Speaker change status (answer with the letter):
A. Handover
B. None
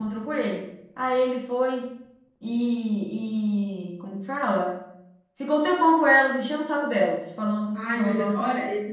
A